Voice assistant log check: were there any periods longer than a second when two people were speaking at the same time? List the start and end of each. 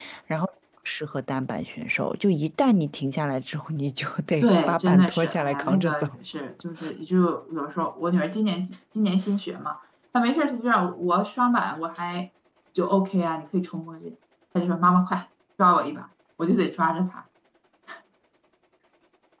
4.4-6.1

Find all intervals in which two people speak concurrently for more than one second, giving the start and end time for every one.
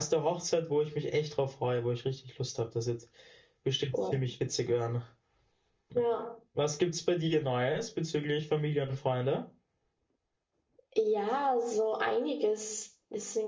none

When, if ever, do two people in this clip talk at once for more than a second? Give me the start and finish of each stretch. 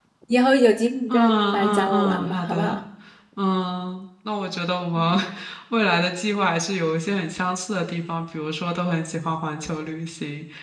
1.1-2.8

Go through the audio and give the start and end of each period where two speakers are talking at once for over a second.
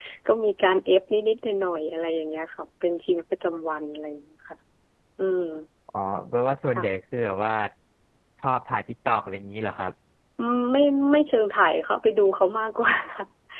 none

